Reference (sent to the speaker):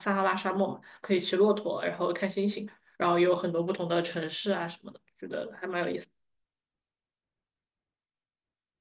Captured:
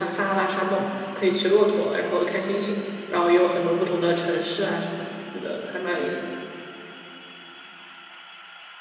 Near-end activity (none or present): none